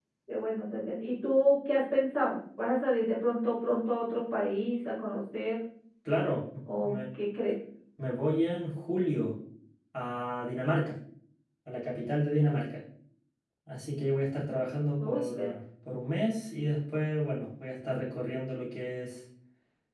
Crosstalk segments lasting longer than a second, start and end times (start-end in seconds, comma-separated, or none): none